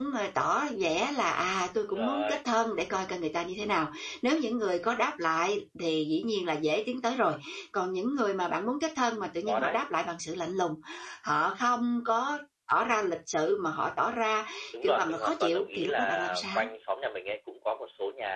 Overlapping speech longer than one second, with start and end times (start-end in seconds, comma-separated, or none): 14.8-16.7